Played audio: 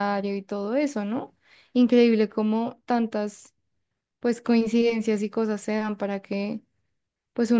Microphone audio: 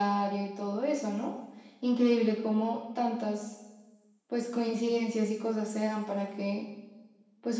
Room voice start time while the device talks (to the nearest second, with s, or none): none